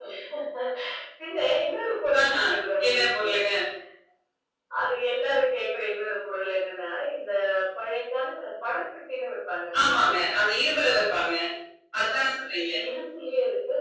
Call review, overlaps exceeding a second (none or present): none